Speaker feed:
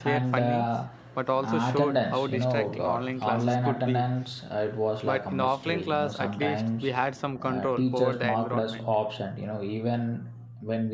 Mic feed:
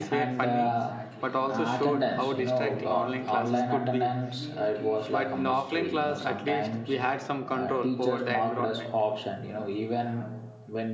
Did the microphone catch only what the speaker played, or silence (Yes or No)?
No